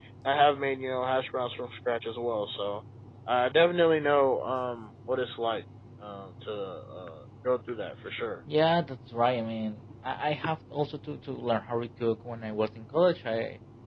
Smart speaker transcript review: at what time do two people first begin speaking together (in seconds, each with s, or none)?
none